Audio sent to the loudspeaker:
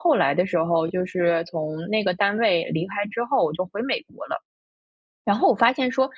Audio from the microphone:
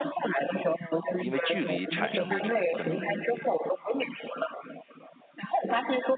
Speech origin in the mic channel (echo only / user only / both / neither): both